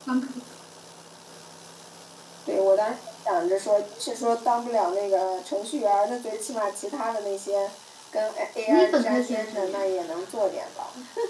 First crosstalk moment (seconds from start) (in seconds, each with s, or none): 8.7 s